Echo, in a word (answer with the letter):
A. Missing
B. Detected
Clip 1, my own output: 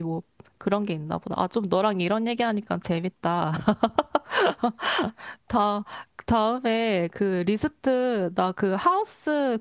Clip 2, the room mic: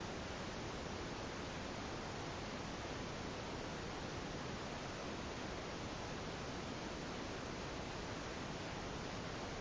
A